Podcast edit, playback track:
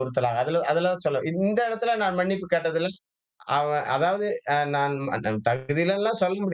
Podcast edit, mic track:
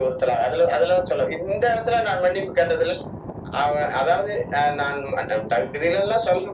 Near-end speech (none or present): none